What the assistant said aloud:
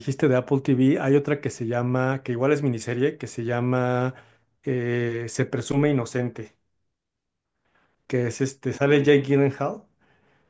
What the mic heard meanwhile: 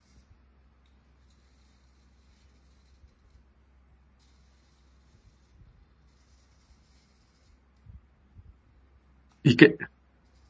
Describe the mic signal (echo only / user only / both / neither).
user only